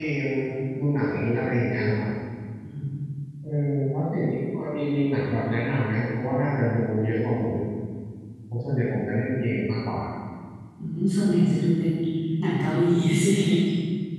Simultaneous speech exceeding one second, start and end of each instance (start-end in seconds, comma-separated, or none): none